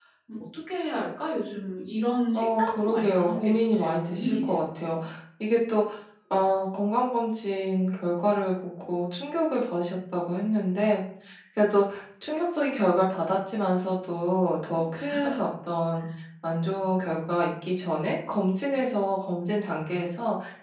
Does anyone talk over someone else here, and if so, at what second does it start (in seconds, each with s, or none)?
2.3 s